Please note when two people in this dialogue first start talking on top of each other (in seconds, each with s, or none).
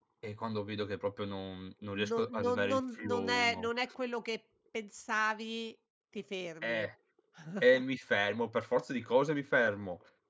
1.9 s